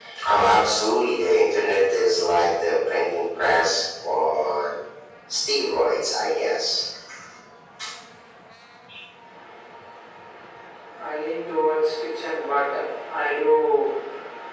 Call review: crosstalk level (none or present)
none